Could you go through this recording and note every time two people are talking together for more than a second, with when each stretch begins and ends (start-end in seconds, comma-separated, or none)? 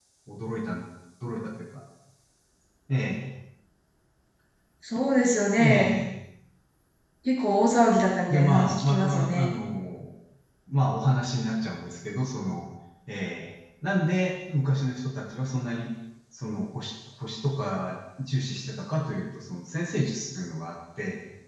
8.3-9.5